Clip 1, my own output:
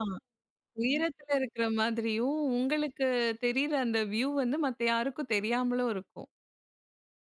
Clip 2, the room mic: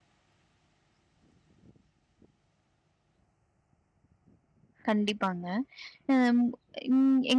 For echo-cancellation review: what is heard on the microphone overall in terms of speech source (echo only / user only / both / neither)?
user only